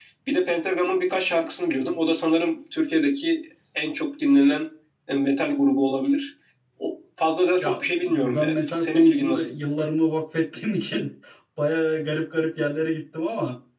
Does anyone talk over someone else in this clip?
Yes, from 7.6 s

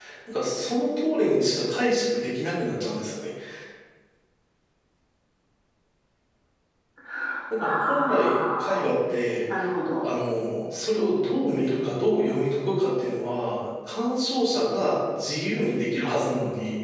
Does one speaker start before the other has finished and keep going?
Yes, from 7.6 s

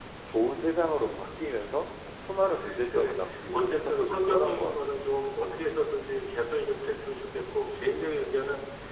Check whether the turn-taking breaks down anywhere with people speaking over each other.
Yes, from 2.4 s

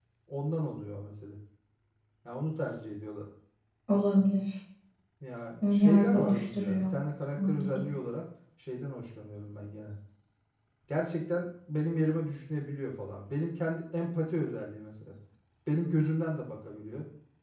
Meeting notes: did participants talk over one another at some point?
Yes, from 5.6 s

